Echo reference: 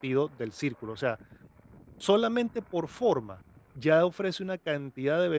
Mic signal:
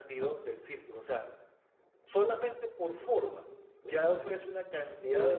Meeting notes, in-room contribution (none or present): present